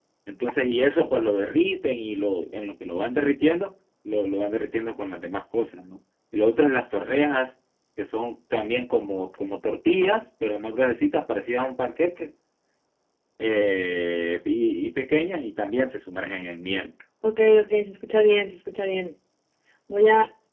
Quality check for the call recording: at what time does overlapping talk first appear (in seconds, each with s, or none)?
none